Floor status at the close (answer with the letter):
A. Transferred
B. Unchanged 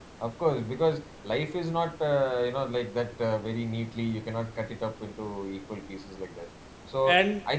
B